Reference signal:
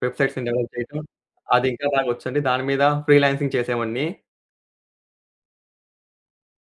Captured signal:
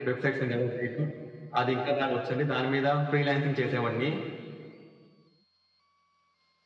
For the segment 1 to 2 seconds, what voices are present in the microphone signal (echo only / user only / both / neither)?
echo only